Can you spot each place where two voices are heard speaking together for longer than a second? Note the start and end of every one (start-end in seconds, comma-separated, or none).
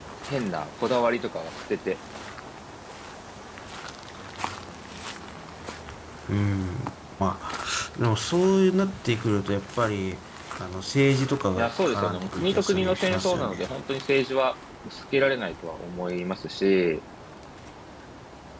11.6-13.7